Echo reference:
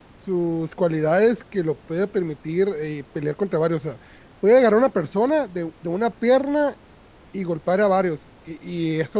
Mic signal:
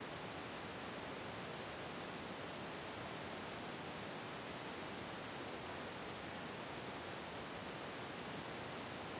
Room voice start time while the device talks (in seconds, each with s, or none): none